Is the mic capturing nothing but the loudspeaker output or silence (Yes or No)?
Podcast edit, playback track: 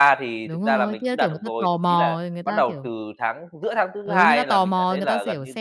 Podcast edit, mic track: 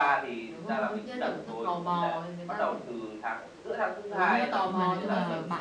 No